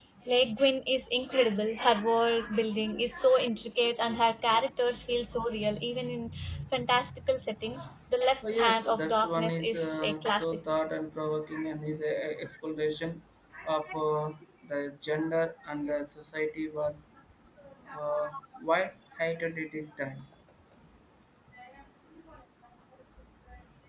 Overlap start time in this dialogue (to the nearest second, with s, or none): 9 s